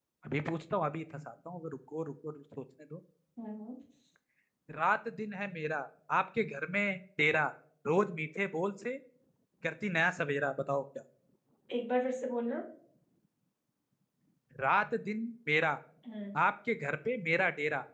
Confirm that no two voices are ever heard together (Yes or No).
Yes